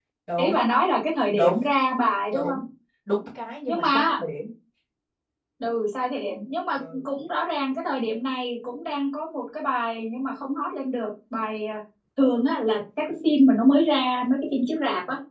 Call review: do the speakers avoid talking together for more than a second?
Yes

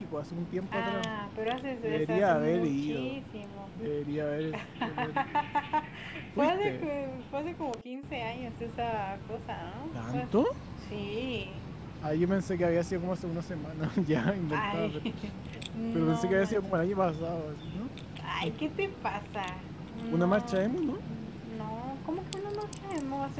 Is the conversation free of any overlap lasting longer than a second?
No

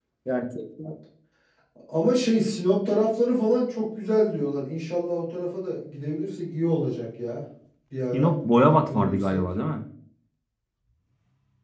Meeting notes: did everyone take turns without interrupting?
No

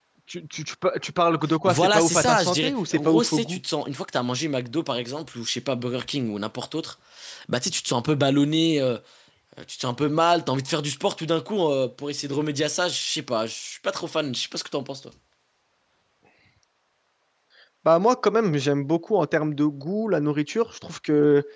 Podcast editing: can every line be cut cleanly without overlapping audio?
No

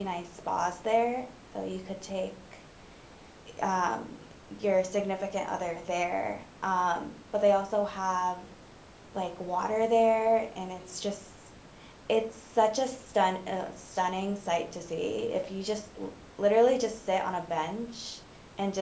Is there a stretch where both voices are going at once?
No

